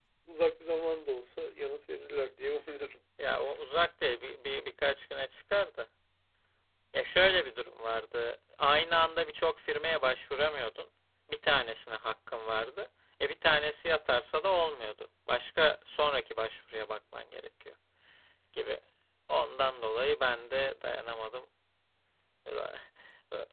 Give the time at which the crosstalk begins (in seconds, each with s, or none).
none